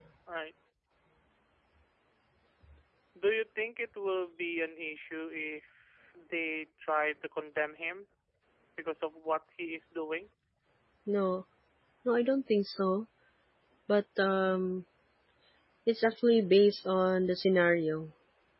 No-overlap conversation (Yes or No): Yes